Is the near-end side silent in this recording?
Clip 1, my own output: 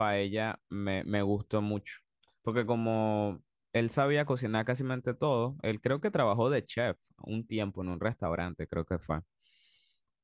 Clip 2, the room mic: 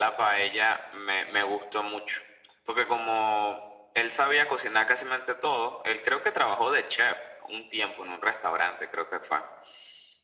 Yes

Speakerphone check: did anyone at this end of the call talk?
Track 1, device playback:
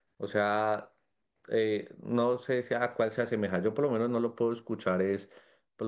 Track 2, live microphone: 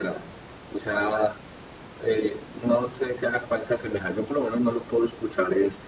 No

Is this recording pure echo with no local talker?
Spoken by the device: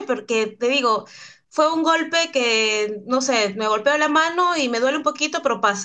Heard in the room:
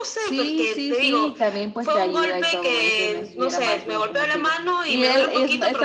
No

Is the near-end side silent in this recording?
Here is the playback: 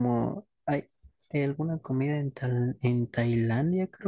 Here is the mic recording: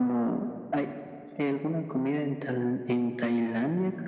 Yes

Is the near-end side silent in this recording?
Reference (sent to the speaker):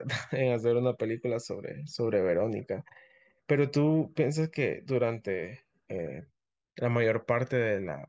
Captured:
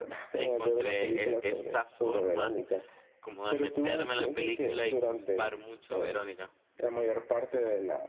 No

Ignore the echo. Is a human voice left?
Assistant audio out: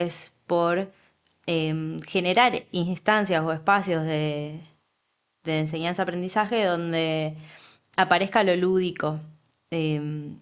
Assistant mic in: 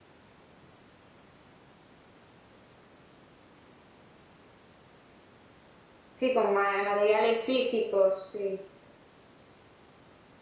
Yes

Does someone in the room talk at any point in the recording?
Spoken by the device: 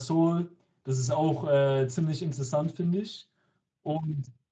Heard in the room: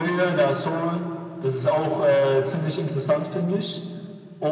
No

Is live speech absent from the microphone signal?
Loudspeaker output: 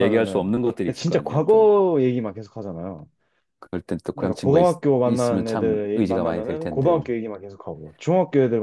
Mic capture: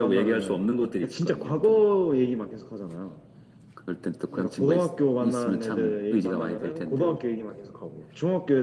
Yes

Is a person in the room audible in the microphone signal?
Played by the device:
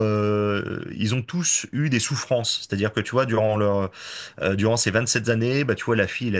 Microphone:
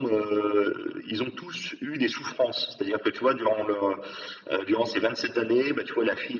No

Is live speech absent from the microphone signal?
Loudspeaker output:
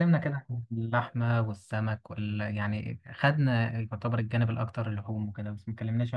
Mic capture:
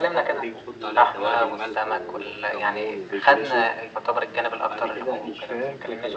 No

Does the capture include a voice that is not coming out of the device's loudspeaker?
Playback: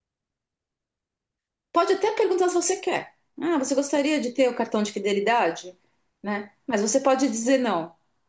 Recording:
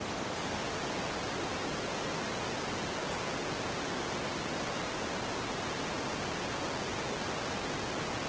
No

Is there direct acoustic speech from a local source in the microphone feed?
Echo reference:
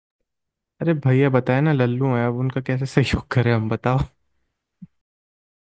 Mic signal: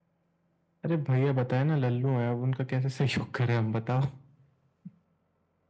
No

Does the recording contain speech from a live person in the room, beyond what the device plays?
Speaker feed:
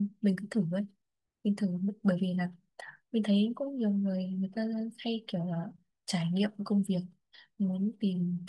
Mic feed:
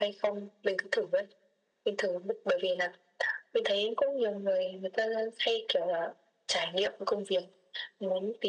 No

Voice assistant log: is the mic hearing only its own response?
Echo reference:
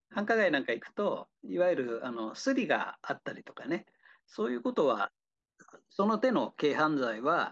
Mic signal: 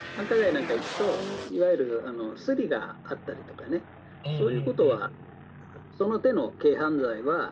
No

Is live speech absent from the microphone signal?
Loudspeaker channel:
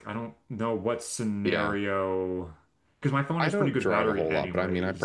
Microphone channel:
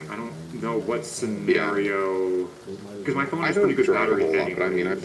No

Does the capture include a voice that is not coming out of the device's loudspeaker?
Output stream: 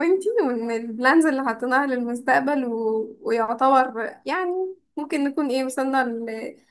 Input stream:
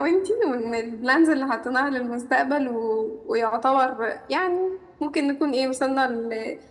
No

